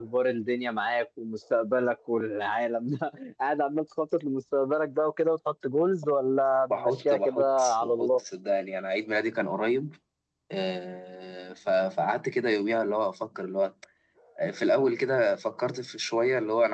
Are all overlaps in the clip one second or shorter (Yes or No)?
No